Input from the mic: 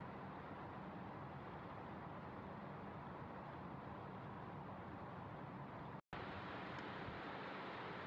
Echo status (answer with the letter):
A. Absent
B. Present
A